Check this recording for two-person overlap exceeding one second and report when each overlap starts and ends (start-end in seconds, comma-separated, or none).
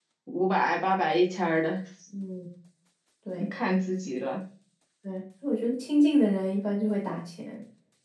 none